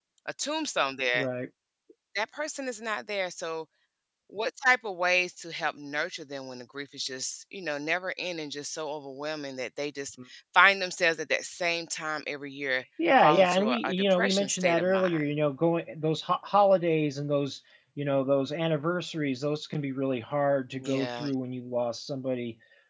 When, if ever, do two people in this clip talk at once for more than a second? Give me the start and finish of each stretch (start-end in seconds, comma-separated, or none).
13.2-15.2